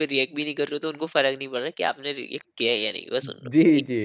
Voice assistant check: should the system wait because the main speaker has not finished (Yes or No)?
No